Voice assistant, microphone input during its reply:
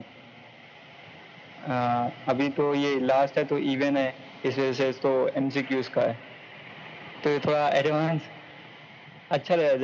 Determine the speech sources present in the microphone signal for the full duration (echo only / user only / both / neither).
echo only